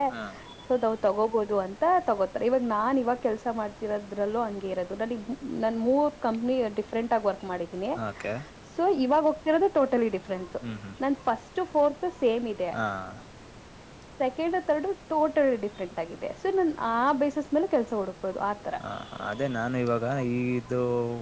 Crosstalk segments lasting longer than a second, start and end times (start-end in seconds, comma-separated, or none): none